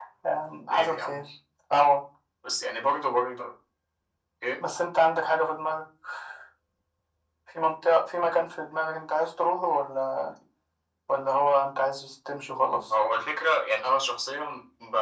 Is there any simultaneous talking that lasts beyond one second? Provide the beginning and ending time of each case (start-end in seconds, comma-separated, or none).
none